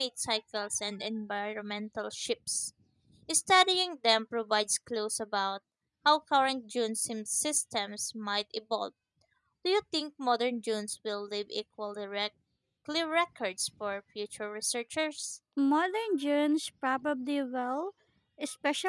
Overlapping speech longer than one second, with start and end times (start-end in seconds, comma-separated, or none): none